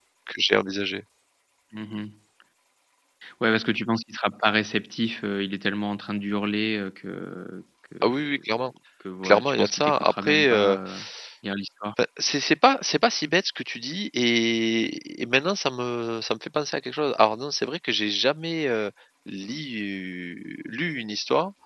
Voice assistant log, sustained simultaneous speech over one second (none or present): present